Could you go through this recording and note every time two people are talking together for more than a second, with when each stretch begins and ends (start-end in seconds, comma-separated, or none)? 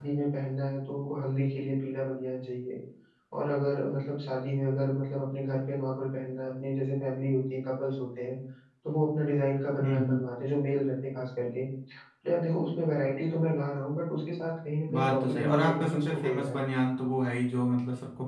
14.9-16.6